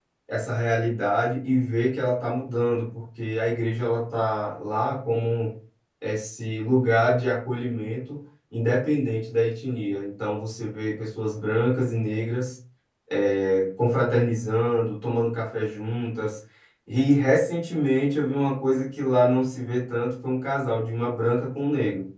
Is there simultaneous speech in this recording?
No

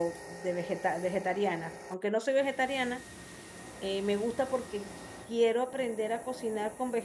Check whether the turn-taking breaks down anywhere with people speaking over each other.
No

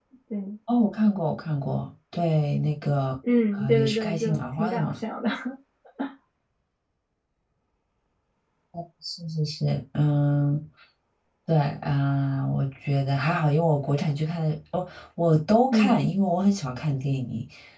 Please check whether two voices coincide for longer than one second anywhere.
Yes, from 3.5 s

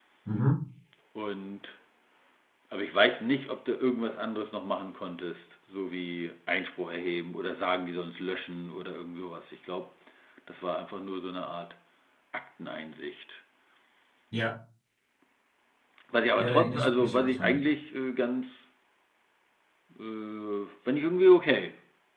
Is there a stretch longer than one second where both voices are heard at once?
Yes, from 16.4 s

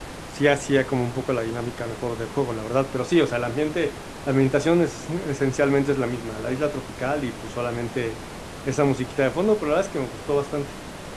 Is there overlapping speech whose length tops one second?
No

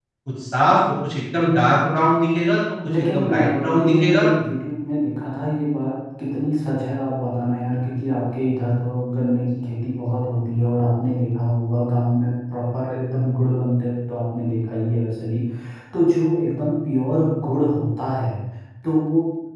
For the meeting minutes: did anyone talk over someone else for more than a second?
Yes, from 2.9 s

